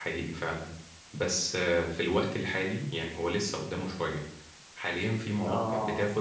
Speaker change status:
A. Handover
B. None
B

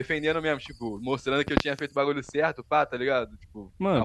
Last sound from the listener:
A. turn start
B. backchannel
A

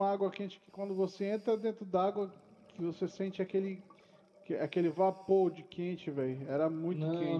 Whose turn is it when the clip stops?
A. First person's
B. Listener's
B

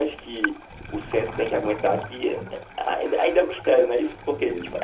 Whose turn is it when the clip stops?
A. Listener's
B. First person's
B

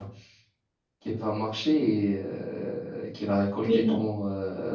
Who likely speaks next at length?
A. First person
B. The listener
A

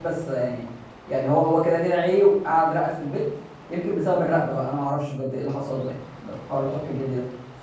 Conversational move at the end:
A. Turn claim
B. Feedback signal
B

